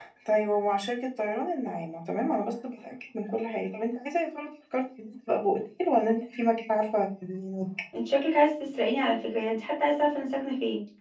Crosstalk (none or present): none